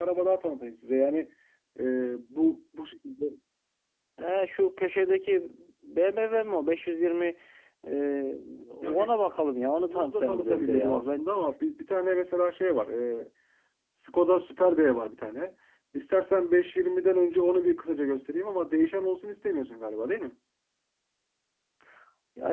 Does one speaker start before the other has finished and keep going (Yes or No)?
Yes